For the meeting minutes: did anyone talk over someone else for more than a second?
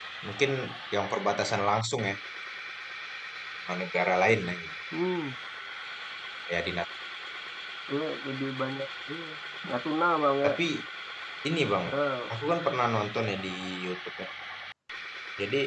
No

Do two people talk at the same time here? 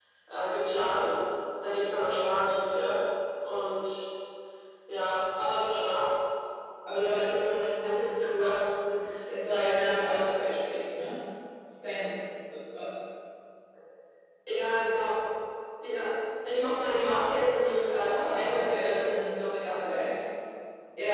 Yes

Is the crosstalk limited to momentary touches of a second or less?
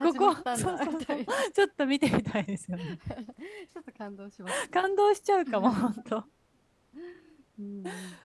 No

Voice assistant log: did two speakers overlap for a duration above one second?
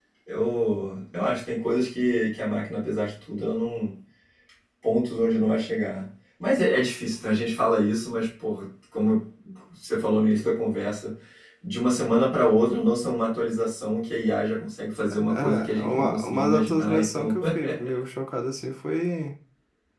Yes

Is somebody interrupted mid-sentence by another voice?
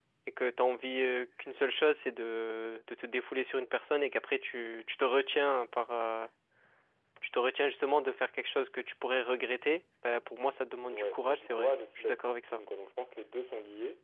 Yes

